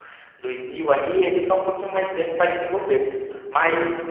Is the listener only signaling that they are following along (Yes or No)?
Yes